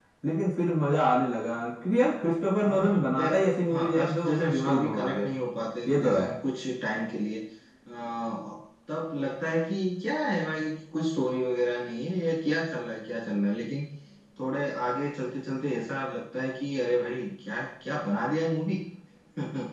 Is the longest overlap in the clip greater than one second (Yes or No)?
Yes